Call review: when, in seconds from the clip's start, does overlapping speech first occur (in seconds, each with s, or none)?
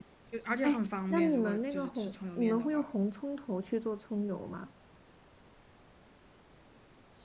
0.6 s